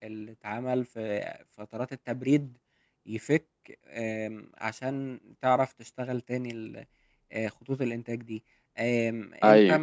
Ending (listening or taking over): listening